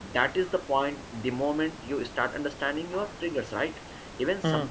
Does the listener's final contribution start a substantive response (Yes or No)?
No